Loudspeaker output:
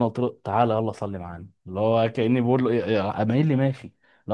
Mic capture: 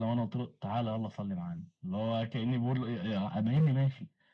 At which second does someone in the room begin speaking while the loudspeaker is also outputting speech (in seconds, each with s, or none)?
none